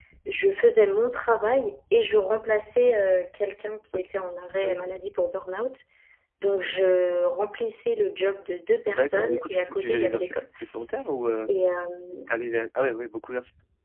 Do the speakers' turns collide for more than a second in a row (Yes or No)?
Yes